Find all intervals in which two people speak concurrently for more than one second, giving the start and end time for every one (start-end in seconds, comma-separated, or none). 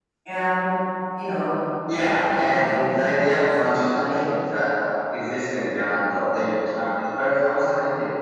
1.9-4.1